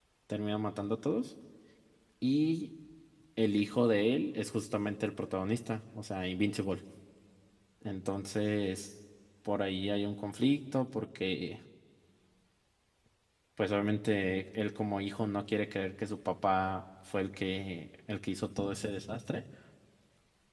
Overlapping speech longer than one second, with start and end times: none

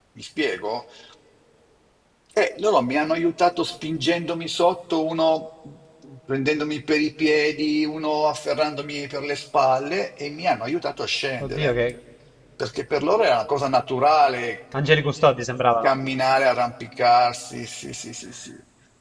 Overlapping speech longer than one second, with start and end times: none

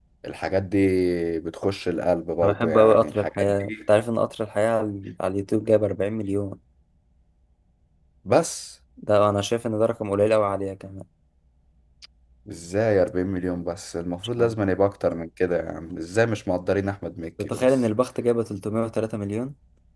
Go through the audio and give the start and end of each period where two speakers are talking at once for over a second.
2.4-3.7

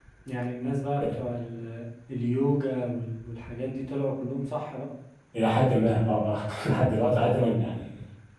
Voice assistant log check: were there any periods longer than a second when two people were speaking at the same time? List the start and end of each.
none

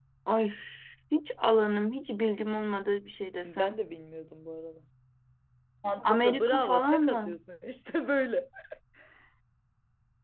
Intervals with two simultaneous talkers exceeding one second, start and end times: 6.0-7.4

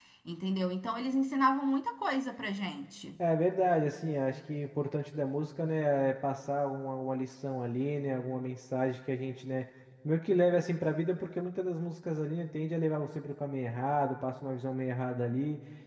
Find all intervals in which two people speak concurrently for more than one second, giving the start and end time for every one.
none

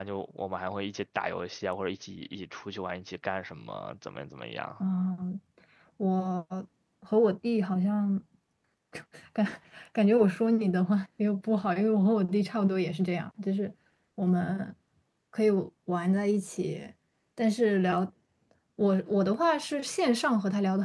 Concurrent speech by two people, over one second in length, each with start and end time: none

